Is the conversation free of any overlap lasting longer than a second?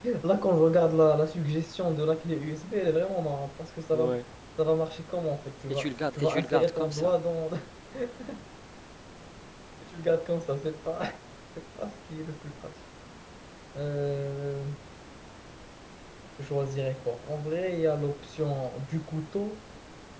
No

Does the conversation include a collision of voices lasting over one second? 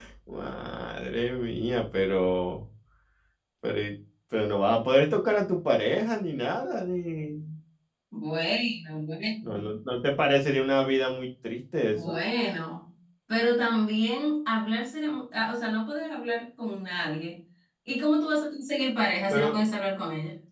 No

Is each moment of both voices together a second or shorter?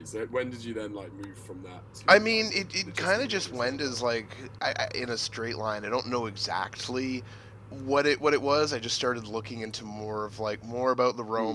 No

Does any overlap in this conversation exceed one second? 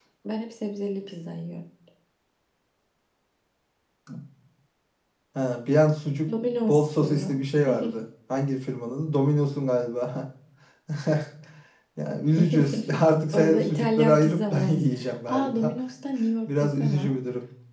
Yes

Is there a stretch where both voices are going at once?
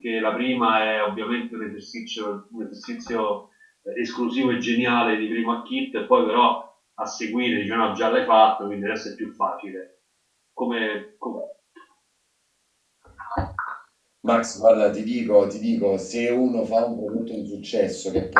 No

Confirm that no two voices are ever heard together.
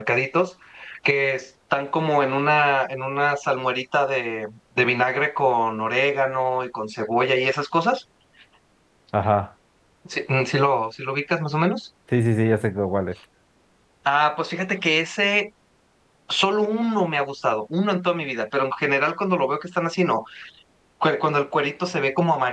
Yes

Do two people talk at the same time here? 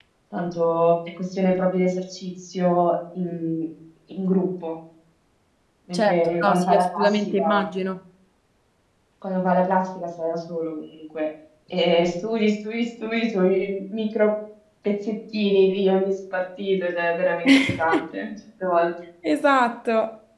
Yes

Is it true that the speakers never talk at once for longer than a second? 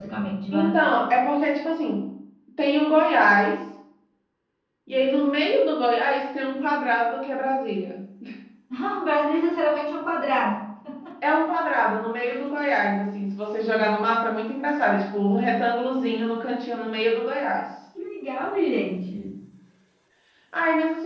Yes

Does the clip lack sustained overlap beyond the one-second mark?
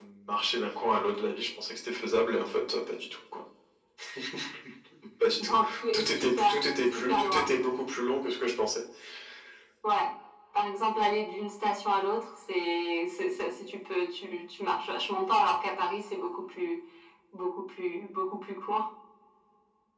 No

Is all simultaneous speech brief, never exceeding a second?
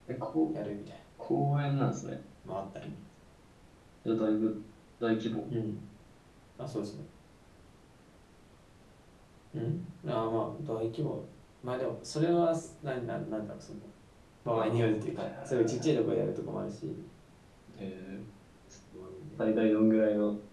No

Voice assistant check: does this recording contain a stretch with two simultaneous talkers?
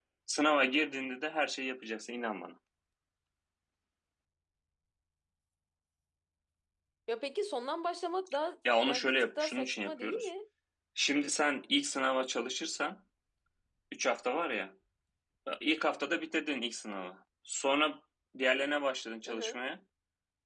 Yes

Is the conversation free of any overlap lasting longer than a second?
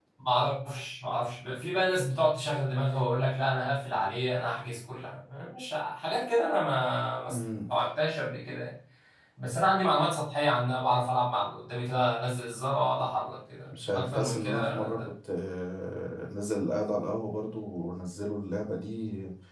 No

